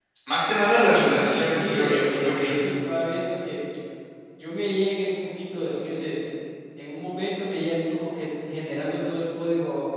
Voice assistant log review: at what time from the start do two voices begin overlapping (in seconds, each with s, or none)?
1.1 s